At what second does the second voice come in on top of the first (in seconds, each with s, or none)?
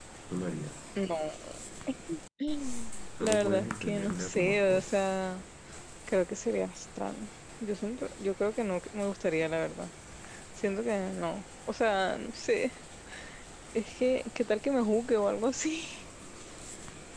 3.2 s